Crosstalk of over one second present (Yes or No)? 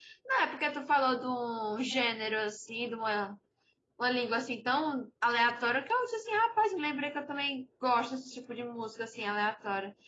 No